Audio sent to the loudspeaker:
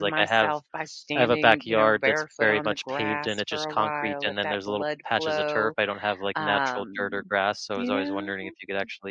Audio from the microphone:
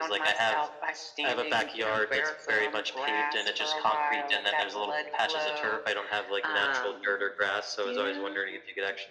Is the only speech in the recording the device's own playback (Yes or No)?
Yes